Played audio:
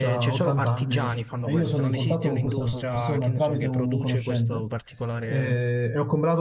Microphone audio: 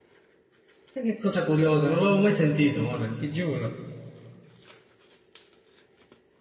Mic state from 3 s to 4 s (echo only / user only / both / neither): user only